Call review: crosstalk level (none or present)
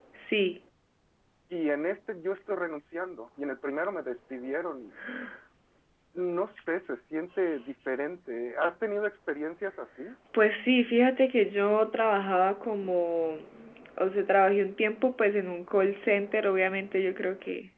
none